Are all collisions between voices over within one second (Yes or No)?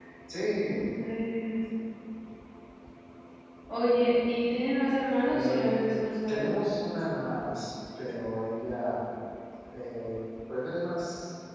Yes